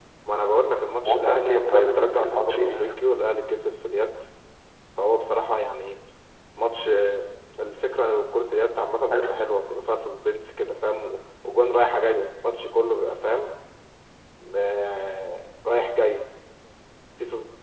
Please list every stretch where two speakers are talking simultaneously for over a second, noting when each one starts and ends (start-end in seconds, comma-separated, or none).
1.0-2.9